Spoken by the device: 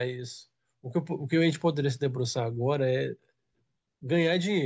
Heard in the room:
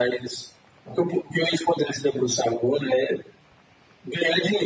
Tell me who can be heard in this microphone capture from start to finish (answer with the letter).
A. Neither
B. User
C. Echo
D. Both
C